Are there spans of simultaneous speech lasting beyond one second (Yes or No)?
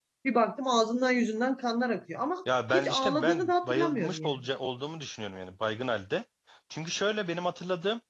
Yes